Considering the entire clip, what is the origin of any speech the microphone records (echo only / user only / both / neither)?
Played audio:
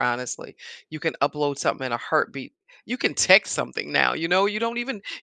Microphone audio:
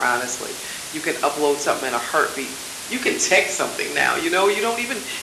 echo only